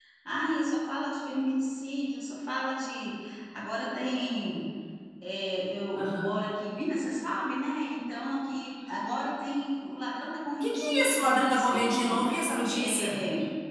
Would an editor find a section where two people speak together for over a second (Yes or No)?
Yes